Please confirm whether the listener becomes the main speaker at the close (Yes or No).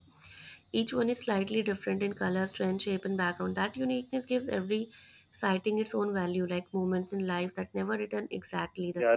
Yes